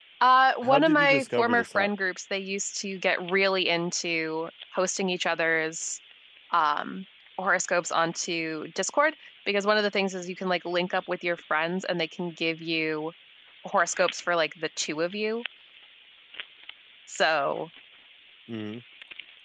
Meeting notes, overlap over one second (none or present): present